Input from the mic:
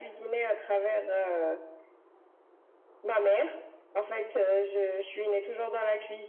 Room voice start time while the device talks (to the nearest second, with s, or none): none